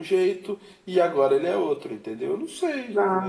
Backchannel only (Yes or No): No